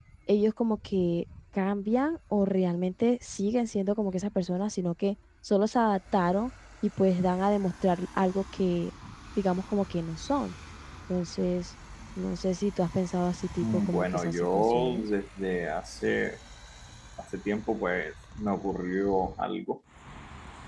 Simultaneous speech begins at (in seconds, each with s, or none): 13.6 s